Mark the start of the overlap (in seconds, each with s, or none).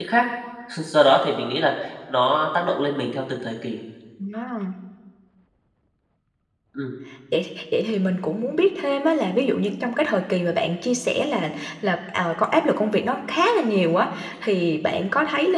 none